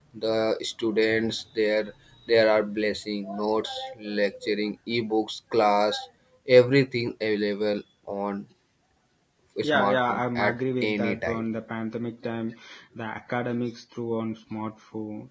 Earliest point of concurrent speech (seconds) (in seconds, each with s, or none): 9.6 s